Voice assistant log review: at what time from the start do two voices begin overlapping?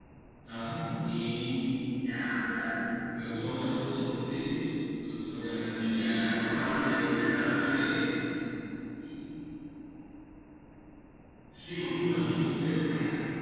5.3 s

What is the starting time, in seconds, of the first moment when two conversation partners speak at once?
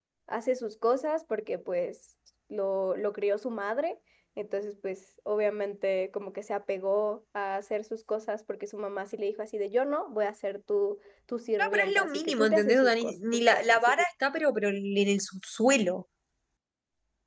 11.6 s

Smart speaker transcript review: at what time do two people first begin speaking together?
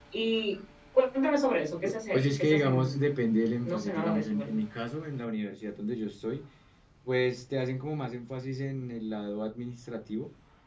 1.8 s

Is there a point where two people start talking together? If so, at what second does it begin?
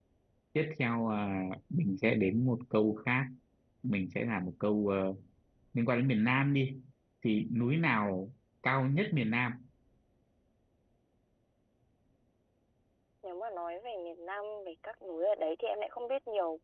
none

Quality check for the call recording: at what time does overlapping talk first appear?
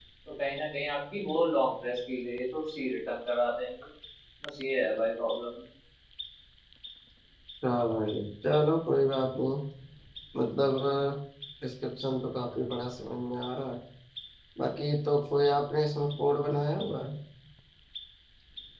none

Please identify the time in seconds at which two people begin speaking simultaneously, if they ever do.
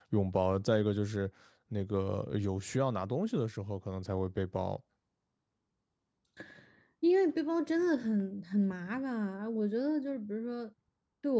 none

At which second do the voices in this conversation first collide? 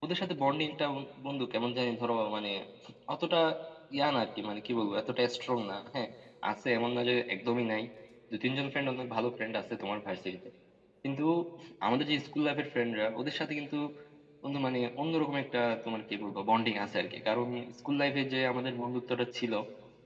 none

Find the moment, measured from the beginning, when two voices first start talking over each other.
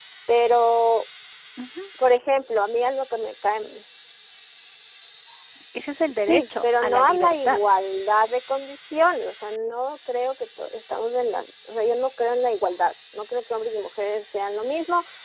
6.2 s

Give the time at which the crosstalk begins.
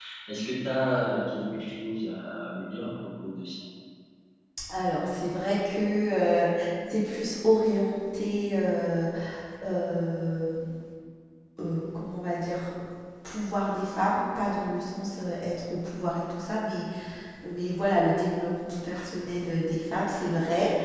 none

